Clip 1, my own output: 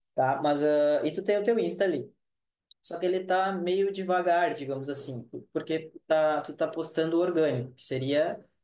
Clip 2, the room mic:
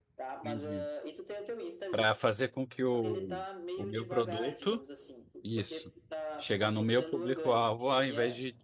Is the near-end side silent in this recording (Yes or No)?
No